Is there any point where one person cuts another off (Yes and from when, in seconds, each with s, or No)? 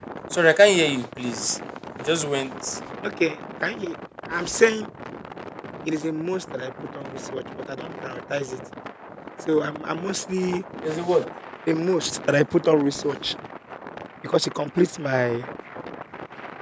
No